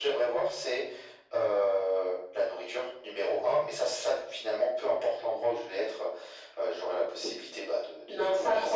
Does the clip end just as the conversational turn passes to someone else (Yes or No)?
Yes